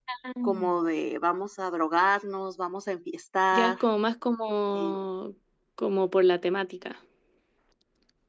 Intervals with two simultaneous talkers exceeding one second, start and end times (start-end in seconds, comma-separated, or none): none